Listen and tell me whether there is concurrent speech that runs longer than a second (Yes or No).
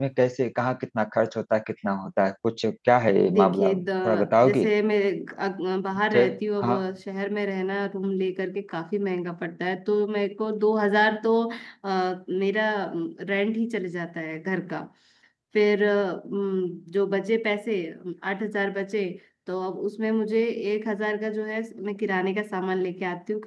Yes